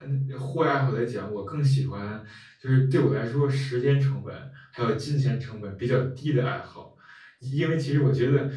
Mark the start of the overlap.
none

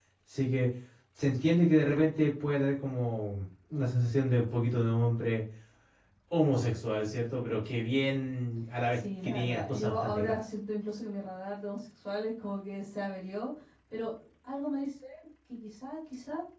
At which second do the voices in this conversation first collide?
8.9 s

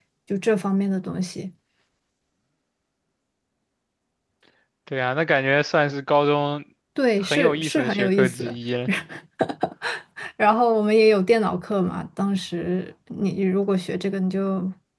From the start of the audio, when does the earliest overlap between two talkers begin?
7.2 s

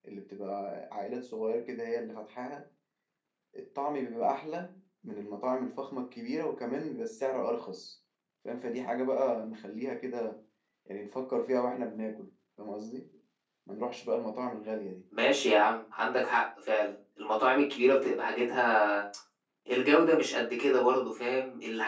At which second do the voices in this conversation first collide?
none

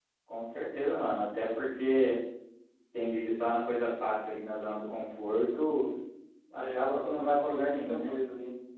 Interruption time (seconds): 6.5 s

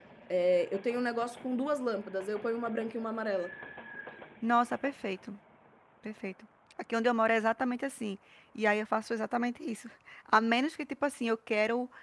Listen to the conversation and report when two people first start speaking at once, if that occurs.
none

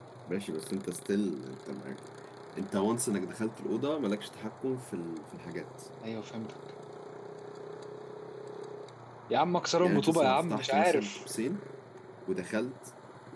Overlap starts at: 9.8 s

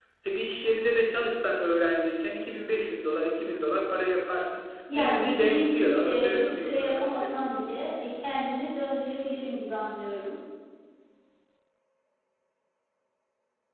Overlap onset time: 4.9 s

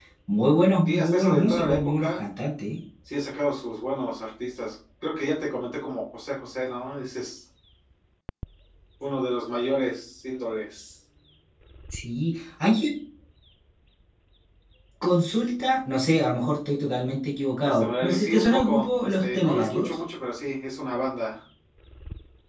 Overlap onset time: 0.8 s

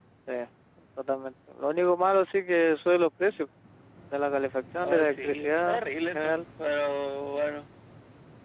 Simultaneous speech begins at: 4.8 s

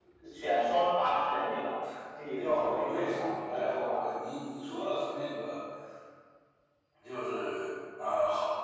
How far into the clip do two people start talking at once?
2.4 s

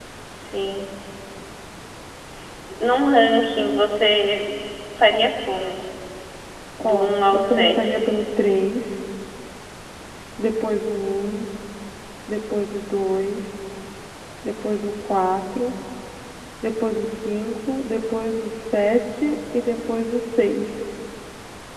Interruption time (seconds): 6.8 s

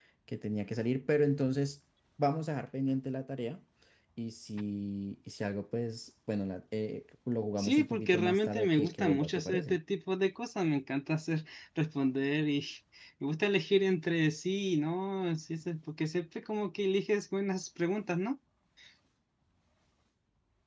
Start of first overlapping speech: 7.6 s

